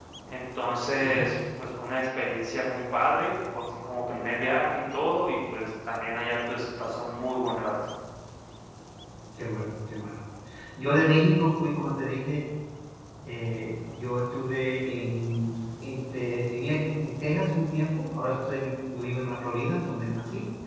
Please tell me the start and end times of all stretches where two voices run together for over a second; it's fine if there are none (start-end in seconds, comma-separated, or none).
none